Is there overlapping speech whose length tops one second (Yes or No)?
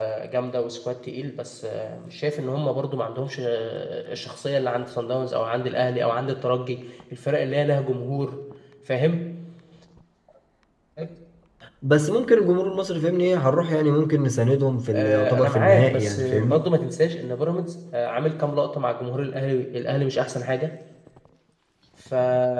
Yes